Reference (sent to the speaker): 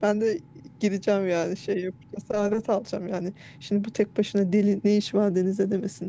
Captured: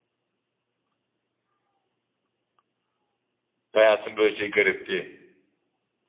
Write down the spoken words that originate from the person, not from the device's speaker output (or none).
Hayatın böyle şey garip diye.